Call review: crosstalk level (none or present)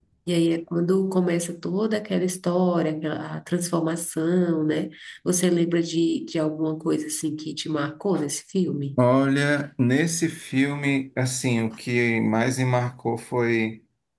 none